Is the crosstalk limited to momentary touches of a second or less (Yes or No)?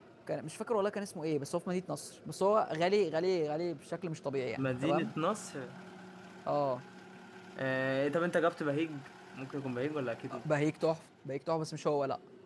Yes